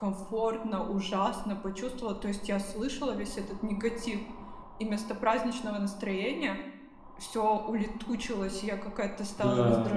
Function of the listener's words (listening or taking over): listening